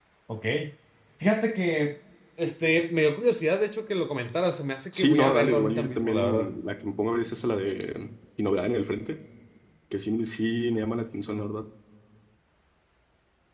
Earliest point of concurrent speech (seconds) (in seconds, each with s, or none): 4.9 s